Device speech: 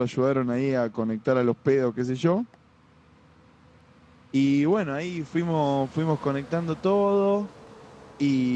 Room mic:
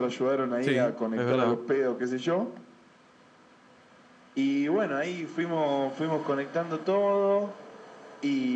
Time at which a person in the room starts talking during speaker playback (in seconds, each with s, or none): 0.6 s